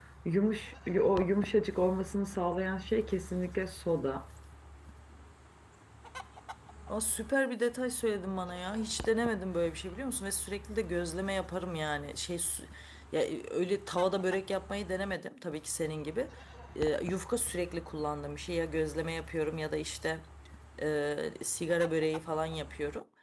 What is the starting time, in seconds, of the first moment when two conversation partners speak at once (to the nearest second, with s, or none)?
none